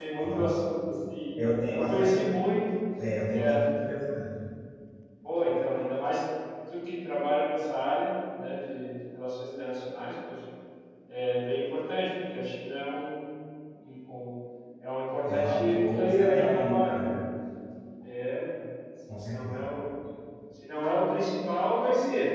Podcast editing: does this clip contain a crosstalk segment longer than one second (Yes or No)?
Yes